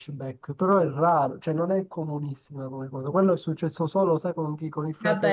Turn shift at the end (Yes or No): Yes